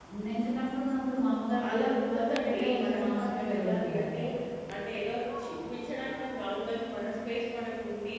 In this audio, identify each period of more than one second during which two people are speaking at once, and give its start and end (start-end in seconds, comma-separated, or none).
1.7-4.1